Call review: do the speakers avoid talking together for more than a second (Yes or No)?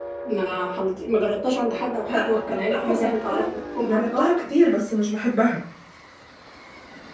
No